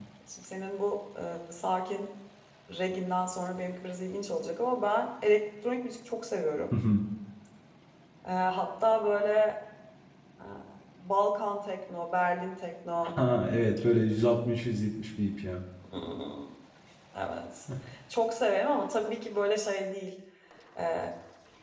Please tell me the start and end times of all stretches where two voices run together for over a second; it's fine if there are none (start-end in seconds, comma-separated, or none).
none